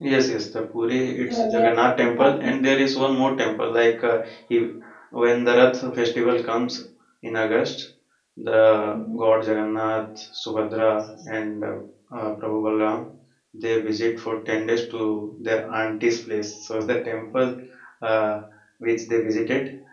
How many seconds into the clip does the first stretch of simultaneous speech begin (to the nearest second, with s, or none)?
1 s